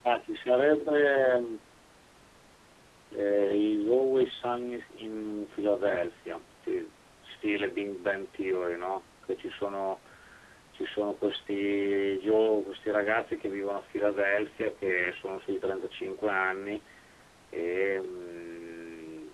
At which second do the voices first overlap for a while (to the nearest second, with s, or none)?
none